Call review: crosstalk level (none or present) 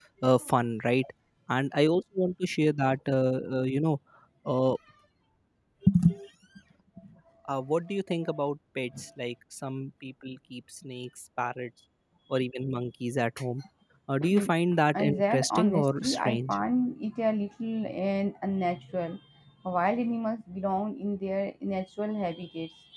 present